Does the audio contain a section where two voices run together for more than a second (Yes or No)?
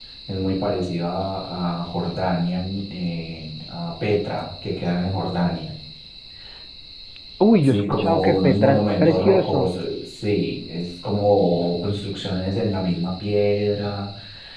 Yes